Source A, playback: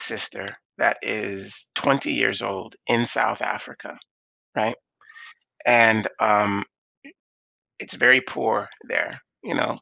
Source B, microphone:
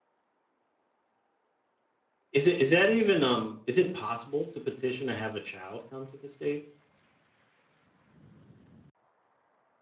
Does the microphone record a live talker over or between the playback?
Yes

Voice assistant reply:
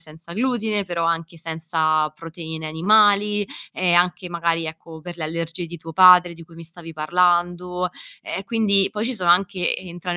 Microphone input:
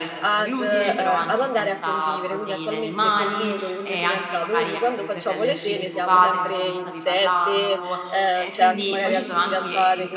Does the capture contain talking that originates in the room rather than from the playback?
Yes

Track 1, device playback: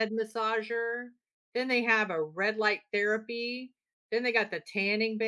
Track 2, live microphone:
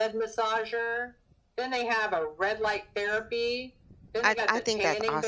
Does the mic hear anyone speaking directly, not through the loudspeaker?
Yes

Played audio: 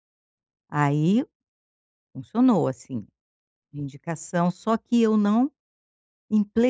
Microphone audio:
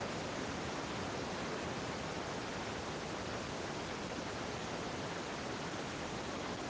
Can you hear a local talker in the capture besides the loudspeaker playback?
No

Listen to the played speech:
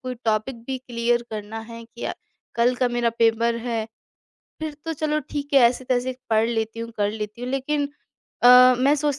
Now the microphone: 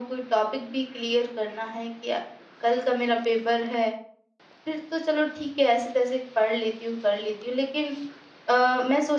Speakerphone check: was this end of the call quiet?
Yes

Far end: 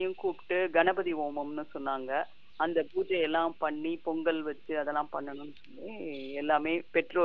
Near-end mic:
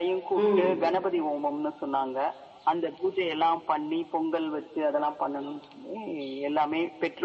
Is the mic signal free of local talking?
No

